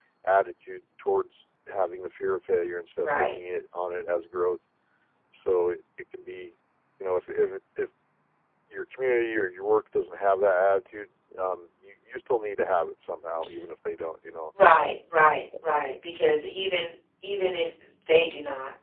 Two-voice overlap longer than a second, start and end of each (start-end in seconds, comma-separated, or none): none